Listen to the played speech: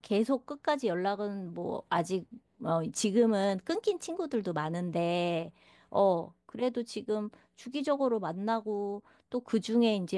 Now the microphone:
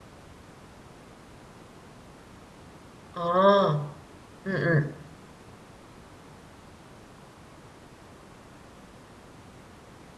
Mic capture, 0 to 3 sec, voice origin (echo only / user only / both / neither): neither